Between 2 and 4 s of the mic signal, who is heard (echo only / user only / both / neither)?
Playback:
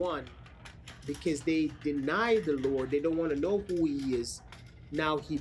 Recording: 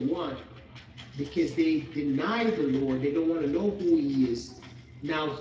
echo only